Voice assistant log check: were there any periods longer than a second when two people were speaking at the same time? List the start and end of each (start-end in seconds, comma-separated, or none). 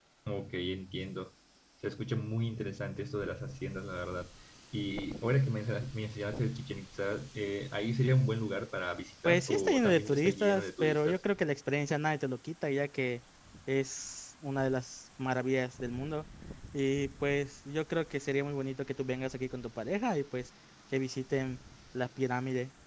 9.2-11.2